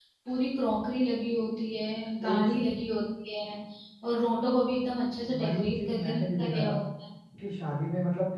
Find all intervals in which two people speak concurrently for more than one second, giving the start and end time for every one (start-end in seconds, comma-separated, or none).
5.4-6.7